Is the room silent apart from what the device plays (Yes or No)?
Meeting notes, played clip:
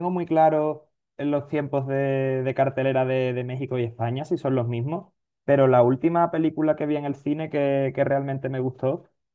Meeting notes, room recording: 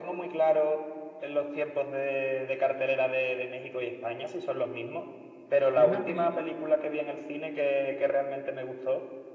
No